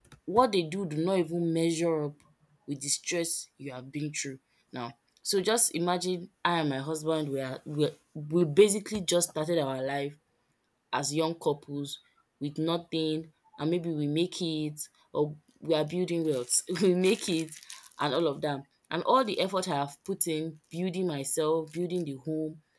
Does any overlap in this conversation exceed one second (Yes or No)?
No